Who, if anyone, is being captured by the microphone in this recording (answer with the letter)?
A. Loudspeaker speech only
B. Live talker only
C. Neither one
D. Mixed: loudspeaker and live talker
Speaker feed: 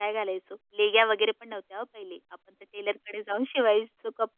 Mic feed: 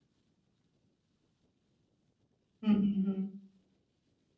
B